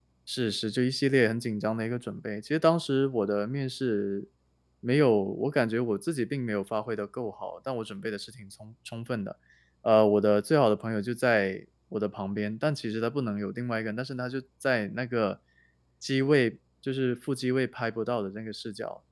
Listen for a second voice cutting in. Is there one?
No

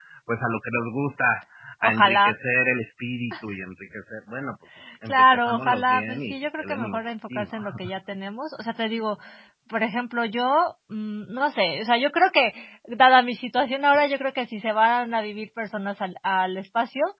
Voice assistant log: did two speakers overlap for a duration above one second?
Yes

